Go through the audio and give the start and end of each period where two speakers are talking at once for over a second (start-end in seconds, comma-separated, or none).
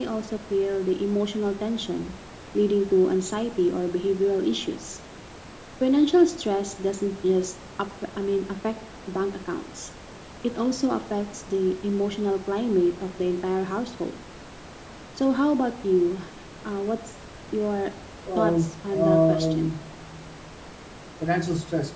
18.4-19.7